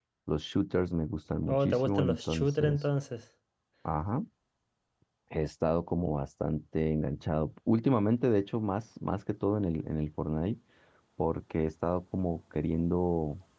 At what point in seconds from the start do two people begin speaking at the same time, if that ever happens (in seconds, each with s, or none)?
1.5 s